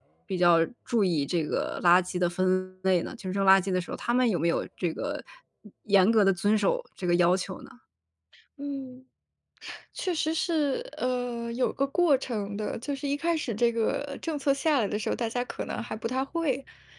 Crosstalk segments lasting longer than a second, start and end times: none

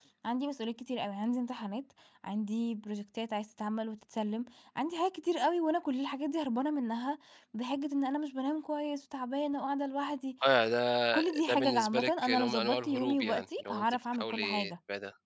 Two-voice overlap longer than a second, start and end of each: 11.1-14.7

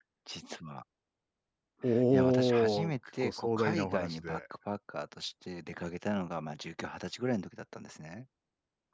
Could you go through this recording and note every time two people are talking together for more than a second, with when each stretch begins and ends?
2.1-4.4

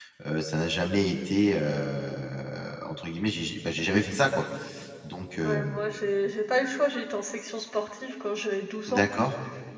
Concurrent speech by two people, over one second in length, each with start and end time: none

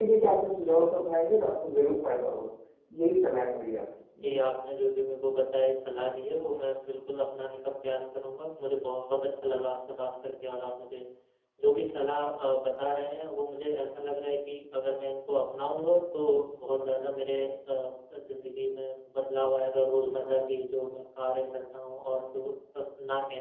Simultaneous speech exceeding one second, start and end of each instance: none

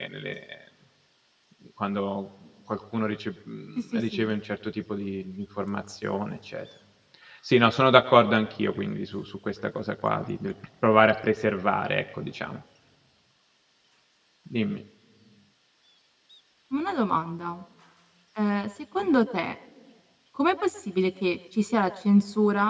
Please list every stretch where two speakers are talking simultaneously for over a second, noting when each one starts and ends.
none

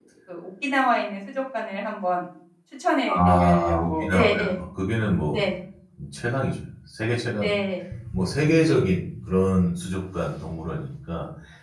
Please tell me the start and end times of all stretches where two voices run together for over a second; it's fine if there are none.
3.0-4.5

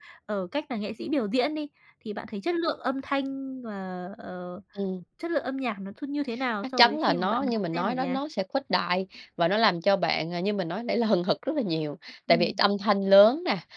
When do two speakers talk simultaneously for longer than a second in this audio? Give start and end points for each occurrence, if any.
6.8-8.2

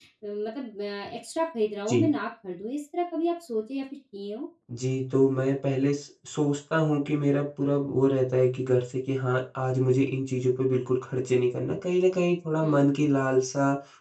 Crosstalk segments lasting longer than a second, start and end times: none

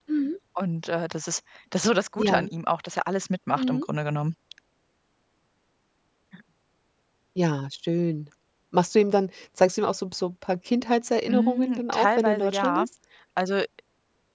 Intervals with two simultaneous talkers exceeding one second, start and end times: 11.3-12.9

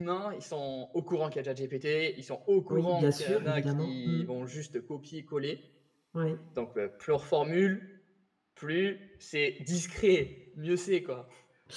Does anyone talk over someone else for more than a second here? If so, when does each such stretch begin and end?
2.7-4.2

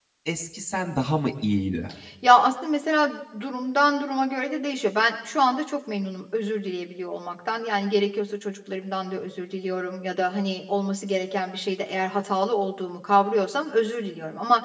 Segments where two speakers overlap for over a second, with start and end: none

